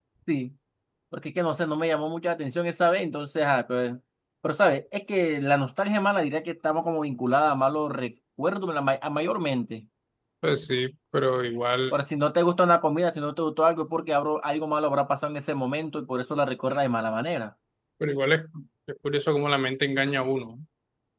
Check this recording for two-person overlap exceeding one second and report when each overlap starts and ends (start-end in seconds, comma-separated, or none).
none